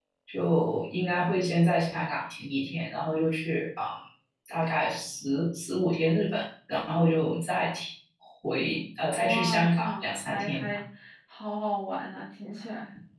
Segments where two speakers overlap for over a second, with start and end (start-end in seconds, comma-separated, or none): 9.2-10.8